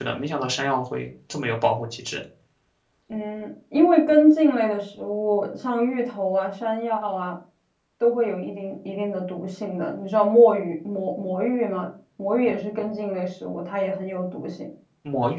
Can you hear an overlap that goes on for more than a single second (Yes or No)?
No